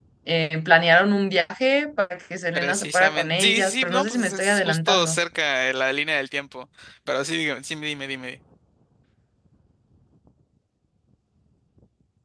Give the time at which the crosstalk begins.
2.5 s

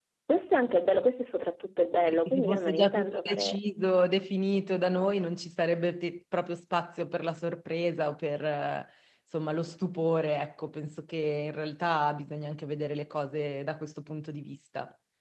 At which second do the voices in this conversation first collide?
2.1 s

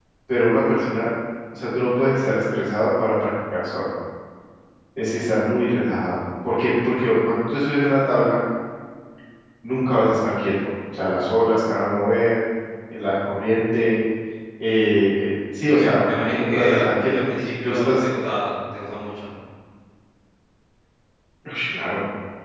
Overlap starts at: 15.8 s

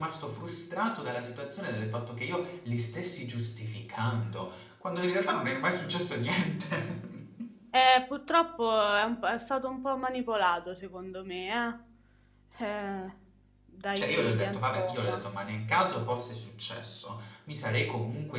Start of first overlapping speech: 14.0 s

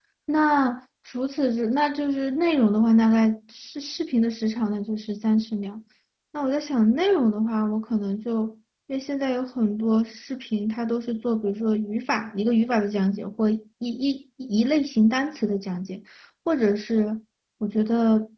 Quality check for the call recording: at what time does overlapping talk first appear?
none

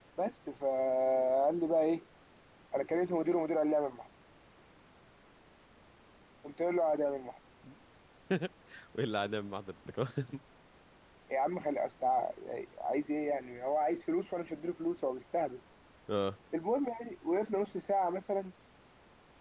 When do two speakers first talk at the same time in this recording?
none

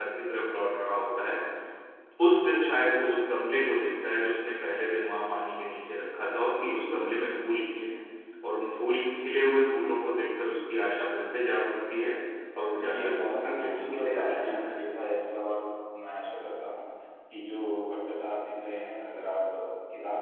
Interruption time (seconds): 12.9 s

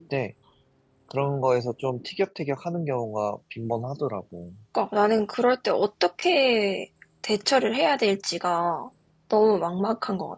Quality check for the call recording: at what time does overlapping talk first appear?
none

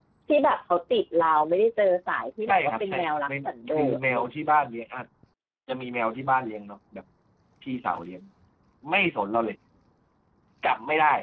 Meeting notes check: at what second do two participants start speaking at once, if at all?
2.4 s

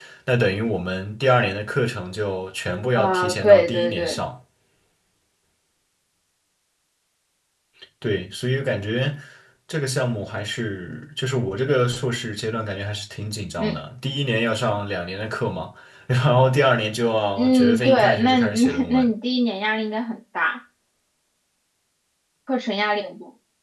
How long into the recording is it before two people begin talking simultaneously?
3.0 s

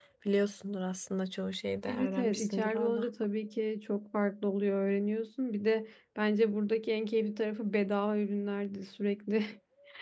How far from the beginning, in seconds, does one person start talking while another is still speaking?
1.9 s

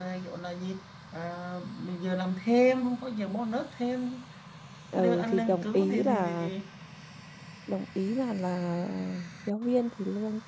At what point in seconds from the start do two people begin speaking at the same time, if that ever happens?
5.0 s

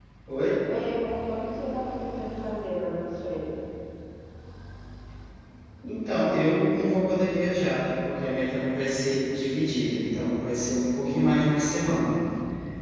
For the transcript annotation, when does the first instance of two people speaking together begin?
none

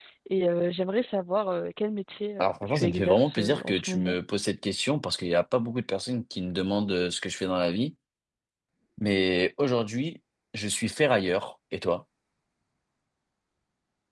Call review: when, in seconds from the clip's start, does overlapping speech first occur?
2.4 s

